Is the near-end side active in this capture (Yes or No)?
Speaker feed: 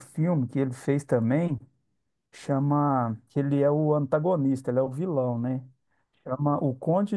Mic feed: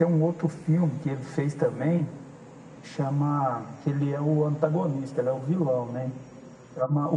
No